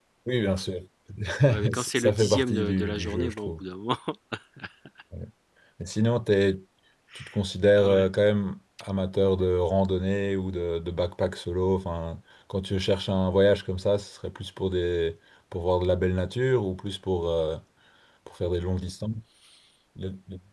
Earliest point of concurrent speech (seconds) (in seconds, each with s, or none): 1.7 s